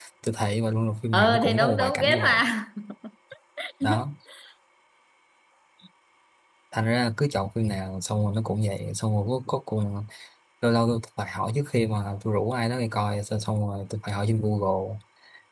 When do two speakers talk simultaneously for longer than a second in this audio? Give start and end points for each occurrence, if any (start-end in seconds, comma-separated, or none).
1.1-2.4